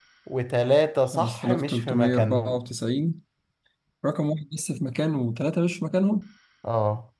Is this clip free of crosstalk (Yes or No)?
No